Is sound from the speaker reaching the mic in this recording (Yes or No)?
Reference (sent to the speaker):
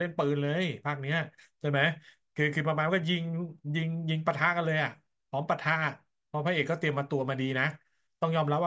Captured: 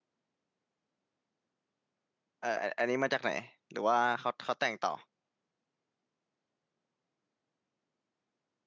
No